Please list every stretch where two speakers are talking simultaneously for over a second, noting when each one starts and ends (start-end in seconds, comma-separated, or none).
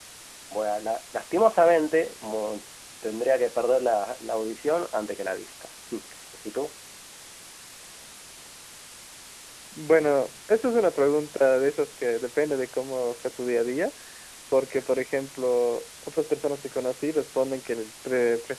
none